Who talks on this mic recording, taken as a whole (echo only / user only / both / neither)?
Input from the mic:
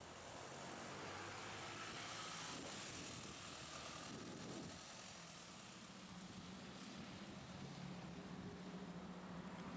neither